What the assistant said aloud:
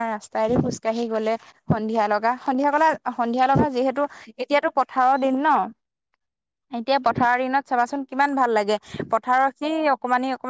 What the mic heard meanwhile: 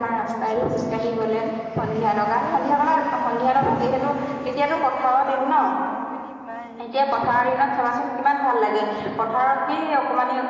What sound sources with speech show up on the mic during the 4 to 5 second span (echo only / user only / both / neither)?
both